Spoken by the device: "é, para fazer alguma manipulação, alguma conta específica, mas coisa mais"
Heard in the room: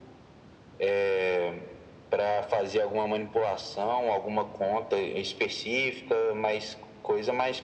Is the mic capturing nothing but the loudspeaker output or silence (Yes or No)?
Yes